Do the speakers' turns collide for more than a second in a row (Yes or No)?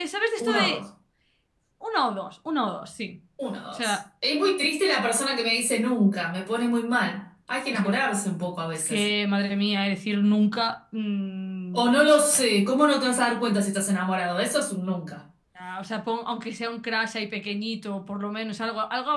No